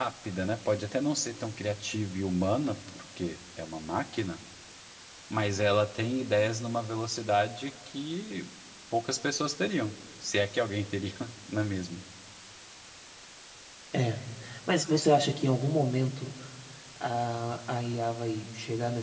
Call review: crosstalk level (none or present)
none